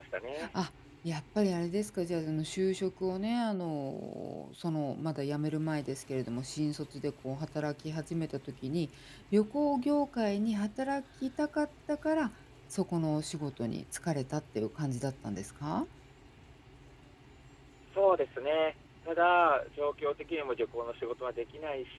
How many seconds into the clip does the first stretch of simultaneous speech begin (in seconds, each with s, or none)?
none